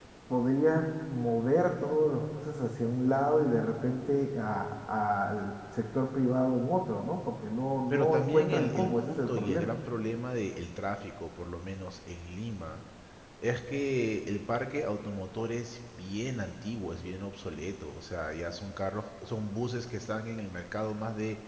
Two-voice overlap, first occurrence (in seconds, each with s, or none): 7.9 s